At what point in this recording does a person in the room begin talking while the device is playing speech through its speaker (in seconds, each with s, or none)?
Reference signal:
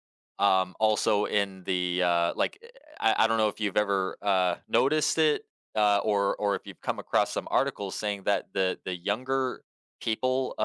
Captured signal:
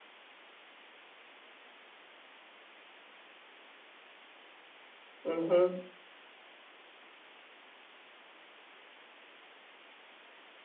5.2 s